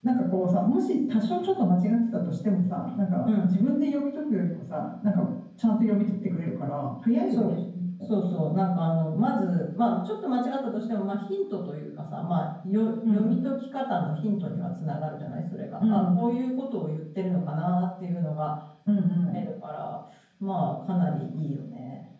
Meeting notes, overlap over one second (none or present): none